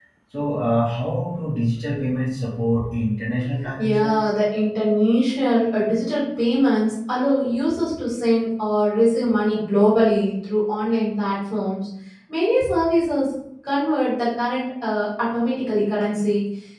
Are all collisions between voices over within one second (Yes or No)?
Yes